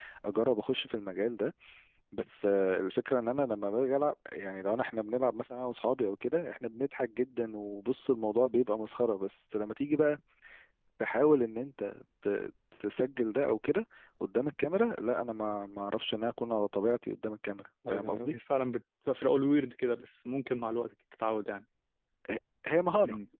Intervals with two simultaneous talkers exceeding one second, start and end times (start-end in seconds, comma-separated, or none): none